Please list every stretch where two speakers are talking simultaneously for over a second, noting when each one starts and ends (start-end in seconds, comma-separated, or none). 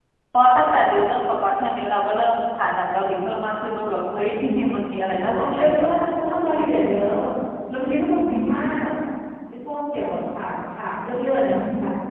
4.8-6.0